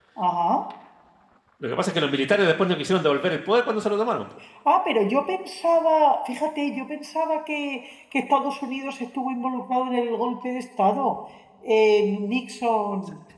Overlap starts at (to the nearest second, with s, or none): none